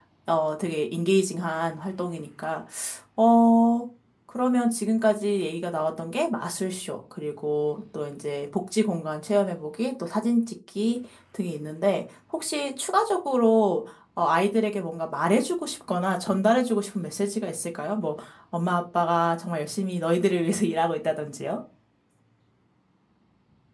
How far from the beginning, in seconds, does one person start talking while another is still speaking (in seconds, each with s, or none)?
none